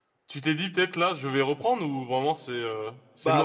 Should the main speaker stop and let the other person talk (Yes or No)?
Yes